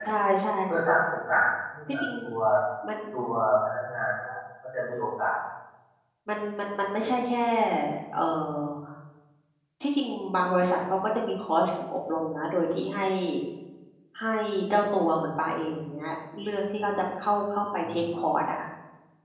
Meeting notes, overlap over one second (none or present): none